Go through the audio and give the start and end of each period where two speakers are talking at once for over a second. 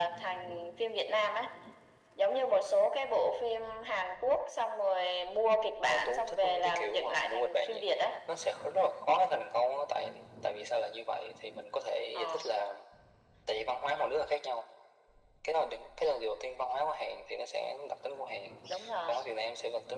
5.9-7.8

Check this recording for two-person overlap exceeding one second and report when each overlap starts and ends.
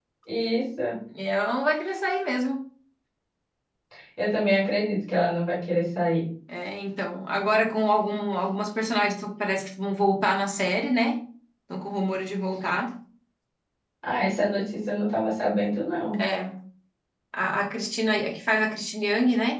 none

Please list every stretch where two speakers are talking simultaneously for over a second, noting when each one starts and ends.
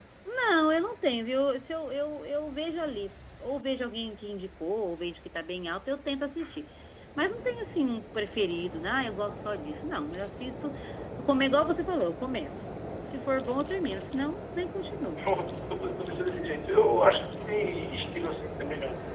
none

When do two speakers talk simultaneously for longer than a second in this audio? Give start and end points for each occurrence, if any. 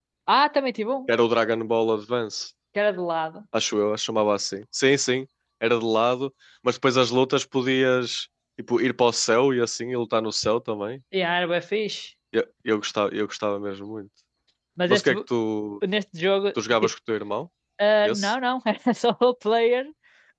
none

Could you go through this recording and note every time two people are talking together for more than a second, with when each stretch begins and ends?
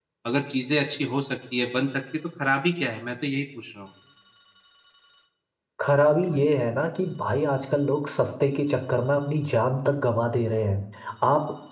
none

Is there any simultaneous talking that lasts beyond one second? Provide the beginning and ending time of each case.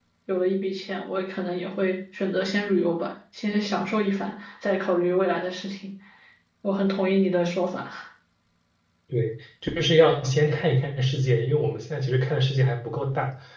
none

